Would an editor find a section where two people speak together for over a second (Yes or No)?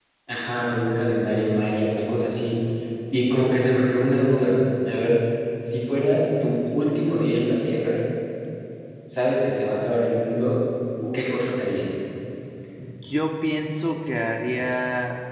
No